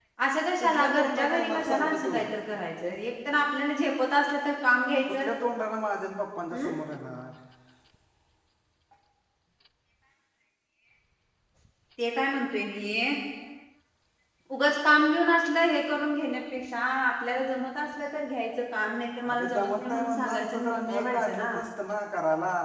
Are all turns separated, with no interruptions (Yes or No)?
No